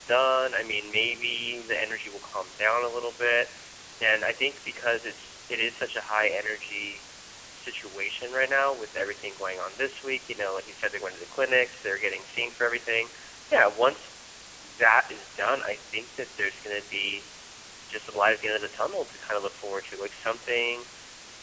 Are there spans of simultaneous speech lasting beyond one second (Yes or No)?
No